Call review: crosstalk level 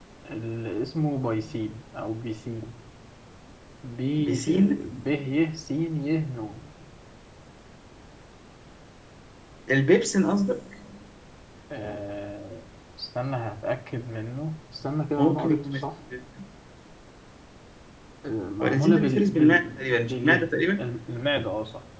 present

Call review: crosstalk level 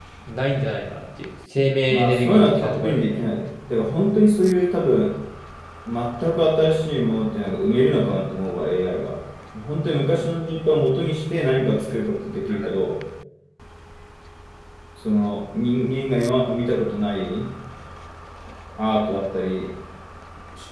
present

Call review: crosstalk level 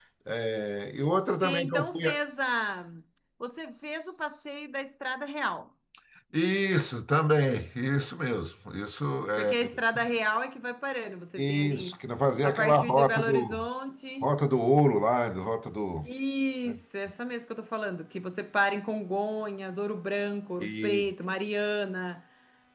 present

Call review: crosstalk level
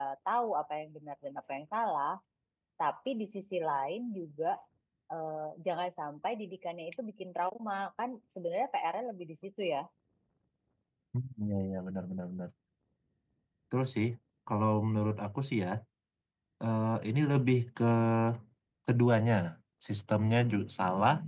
none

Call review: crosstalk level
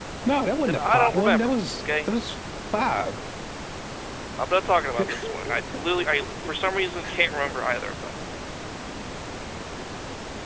present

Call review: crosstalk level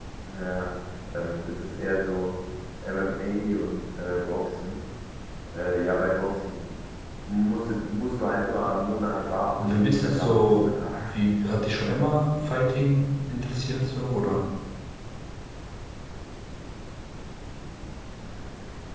present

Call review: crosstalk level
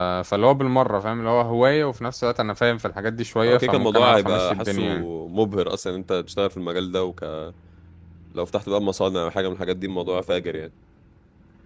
present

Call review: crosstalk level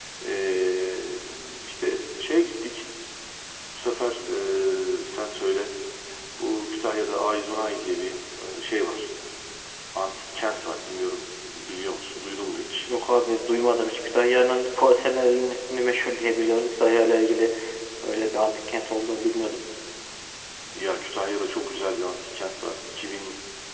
none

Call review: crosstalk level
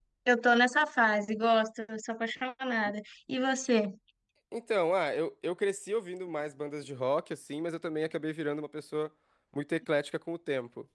none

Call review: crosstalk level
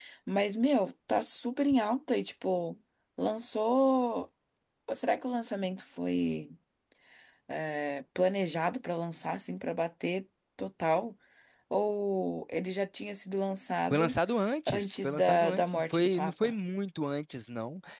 present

